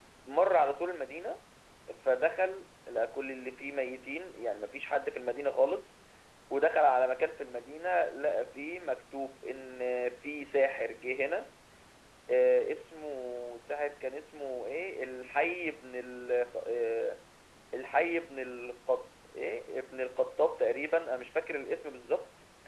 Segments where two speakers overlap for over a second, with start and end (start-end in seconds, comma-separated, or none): none